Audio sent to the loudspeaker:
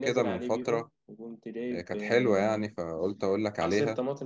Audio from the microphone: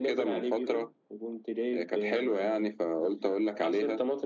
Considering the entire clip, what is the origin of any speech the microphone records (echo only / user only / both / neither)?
echo only